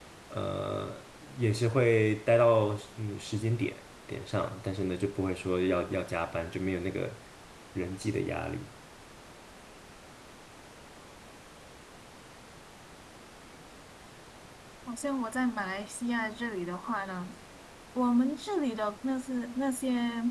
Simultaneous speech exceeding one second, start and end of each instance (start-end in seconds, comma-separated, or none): none